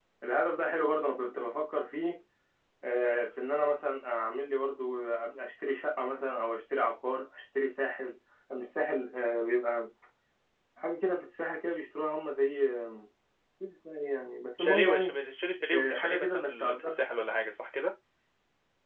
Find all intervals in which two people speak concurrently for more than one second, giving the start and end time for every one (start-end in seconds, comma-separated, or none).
15.7-17.0